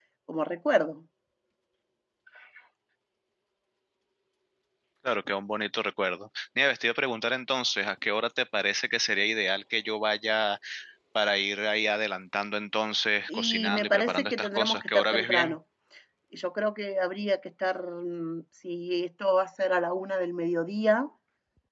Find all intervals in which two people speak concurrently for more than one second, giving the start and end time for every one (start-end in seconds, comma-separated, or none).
13.3-15.6